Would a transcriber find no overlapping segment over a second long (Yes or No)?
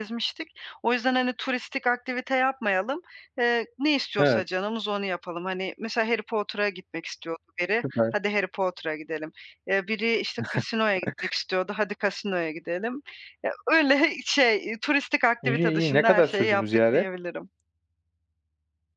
No